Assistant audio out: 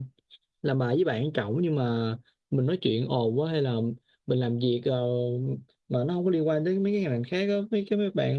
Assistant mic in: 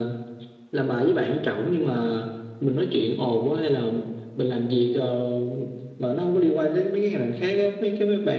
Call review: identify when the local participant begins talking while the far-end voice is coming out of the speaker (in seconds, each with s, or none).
none